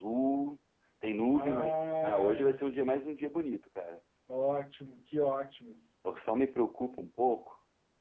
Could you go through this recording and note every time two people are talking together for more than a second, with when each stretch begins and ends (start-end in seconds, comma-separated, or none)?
1.3-2.6